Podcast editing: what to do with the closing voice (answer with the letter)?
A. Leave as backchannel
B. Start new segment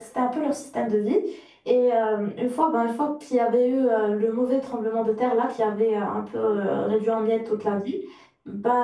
A